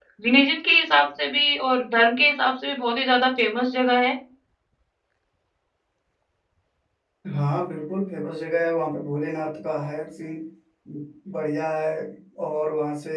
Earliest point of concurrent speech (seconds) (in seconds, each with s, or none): none